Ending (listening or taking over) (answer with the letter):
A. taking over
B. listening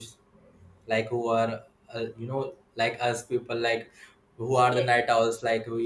B